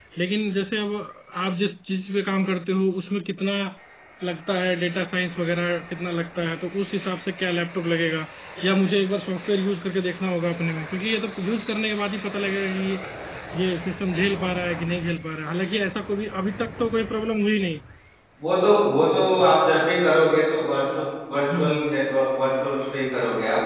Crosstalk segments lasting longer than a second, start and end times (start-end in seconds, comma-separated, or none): none